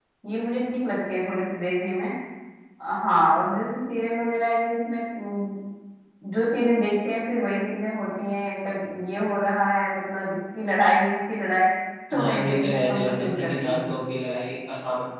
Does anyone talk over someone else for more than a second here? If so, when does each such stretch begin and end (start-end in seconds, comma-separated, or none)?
12.2-13.9